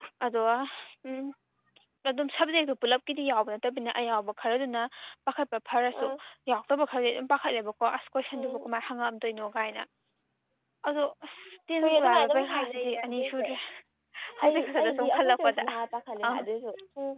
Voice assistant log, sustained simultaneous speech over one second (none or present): present